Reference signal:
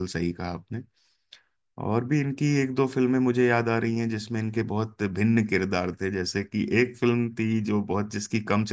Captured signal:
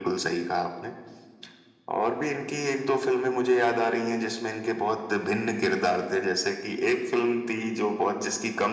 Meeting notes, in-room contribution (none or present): none